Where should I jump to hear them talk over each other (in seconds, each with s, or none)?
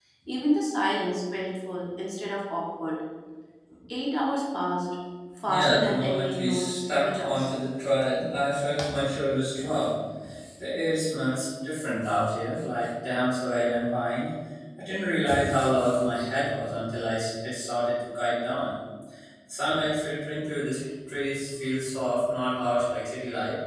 5.5 s